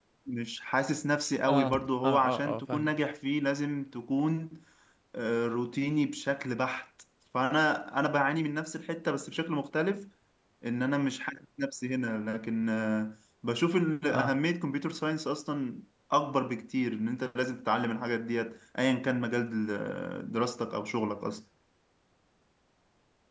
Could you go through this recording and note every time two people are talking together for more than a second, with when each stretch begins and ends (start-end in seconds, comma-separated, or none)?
1.5-3.0